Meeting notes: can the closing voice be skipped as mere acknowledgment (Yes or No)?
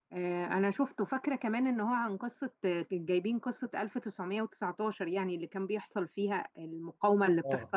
No